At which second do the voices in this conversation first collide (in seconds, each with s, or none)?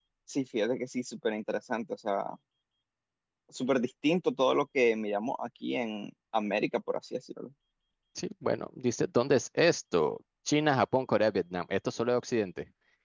none